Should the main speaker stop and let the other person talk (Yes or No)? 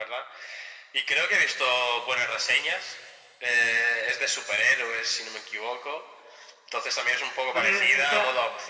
No